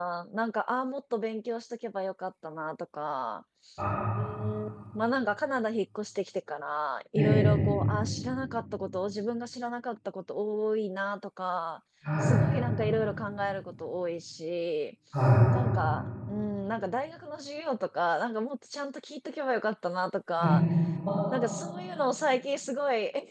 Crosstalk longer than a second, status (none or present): none